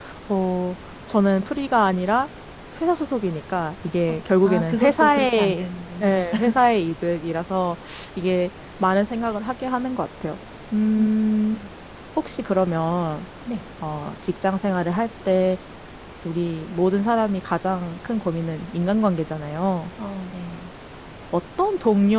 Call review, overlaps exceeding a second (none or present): present